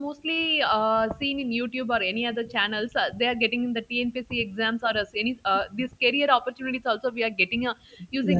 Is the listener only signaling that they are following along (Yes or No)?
No